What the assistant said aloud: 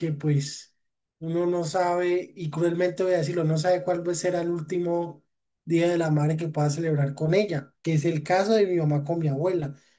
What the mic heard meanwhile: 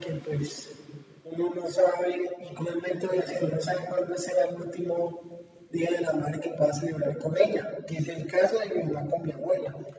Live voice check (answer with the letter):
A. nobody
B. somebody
A